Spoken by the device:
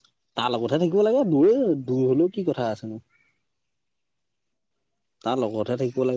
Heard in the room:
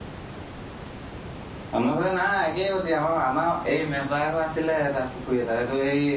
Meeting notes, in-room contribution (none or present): present